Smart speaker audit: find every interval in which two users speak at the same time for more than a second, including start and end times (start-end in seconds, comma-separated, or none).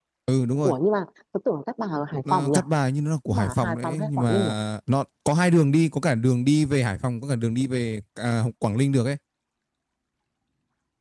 3.3-4.5